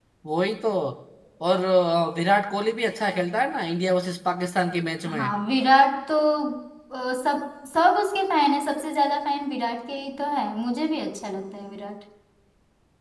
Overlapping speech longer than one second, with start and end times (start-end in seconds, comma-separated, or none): none